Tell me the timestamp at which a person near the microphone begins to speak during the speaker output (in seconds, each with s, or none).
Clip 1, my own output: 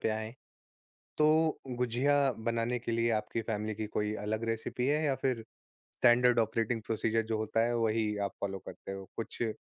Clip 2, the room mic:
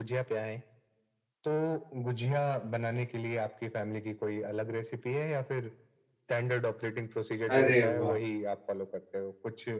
7.5 s